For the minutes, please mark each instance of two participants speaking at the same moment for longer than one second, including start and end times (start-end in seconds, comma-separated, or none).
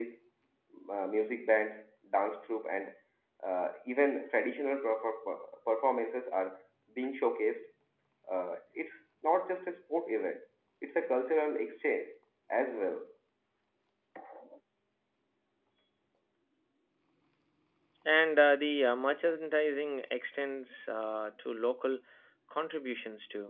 none